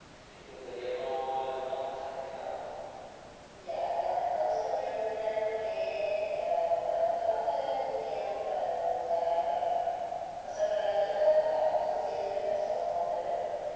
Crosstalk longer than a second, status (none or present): none